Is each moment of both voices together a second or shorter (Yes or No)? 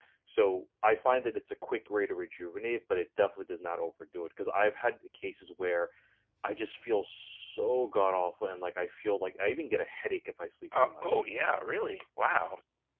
Yes